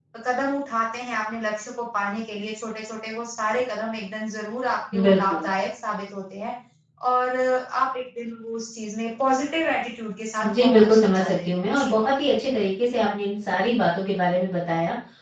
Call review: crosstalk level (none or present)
present